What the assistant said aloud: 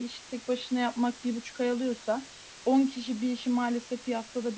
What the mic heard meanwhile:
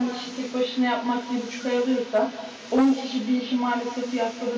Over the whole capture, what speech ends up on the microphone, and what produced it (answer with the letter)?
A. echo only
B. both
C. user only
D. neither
A